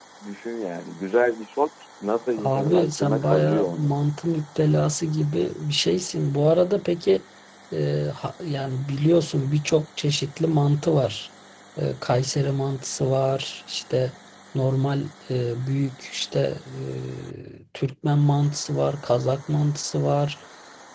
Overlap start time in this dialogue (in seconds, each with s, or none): 2.4 s